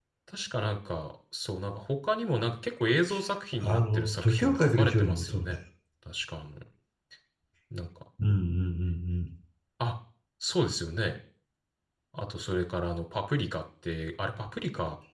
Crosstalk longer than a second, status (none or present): present